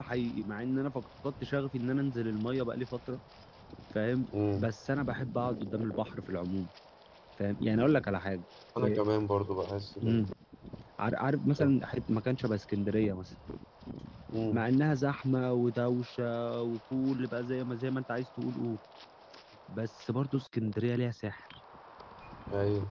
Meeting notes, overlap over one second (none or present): none